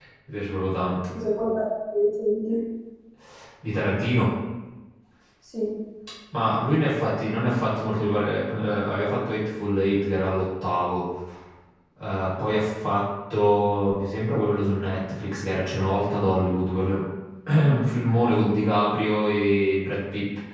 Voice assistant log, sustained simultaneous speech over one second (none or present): none